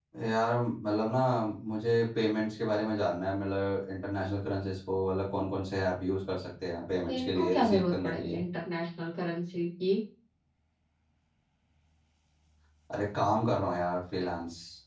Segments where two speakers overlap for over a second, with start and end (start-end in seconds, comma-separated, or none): 7.1-8.4